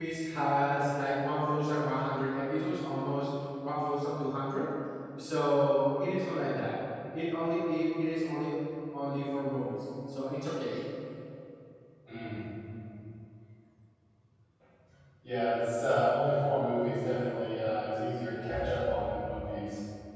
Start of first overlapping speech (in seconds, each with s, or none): none